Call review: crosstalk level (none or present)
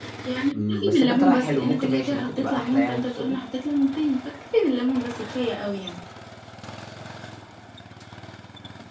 present